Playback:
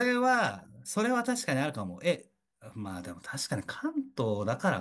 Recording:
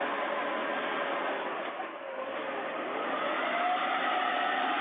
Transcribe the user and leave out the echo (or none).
none